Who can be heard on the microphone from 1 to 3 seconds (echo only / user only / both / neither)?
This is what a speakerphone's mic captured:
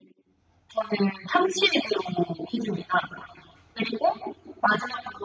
echo only